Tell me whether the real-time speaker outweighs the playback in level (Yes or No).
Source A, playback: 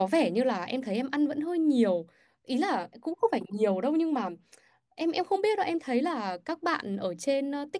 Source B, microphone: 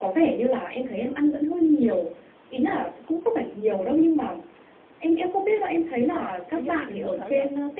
No